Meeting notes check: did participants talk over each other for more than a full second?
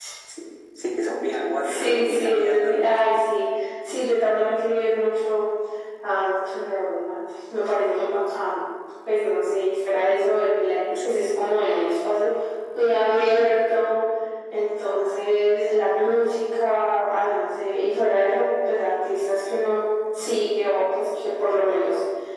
Yes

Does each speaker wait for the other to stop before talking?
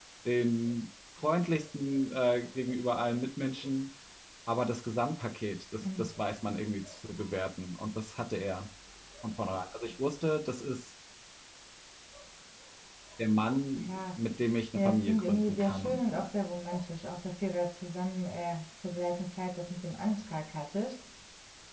No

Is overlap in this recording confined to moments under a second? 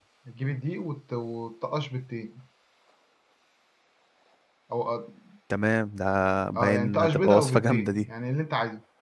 No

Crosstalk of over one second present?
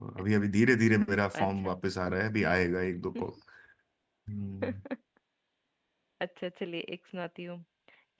No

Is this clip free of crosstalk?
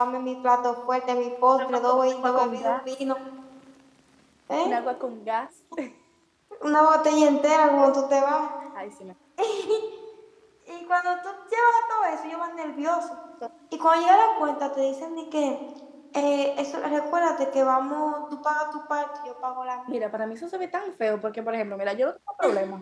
No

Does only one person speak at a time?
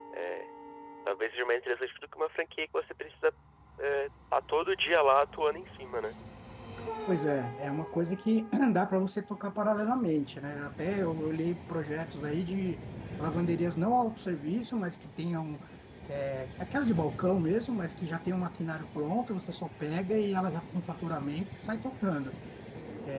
Yes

